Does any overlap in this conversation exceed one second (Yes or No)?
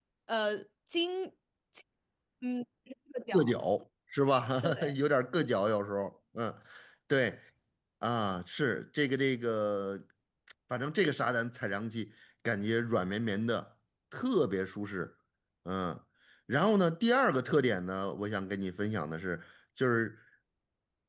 No